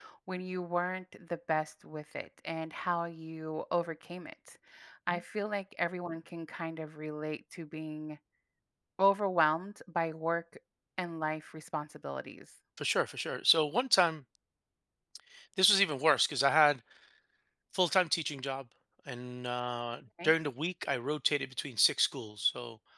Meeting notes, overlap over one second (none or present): none